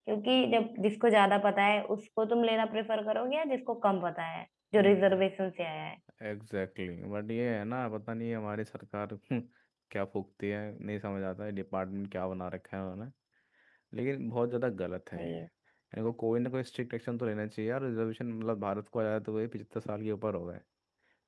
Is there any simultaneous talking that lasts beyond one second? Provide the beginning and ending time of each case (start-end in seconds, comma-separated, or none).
none